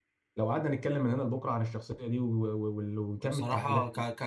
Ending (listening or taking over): taking over